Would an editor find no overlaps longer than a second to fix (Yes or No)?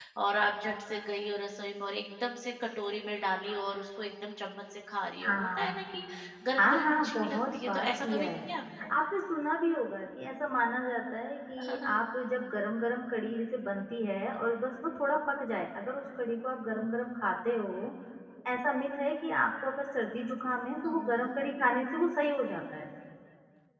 No